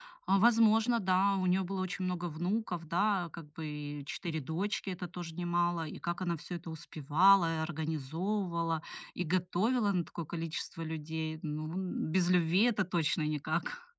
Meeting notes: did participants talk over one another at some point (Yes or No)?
No